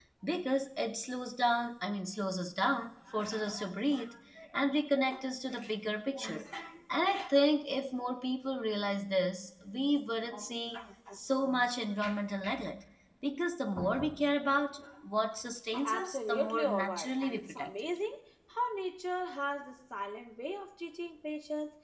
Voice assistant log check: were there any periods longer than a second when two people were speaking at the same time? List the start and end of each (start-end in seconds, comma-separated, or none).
15.8-17.7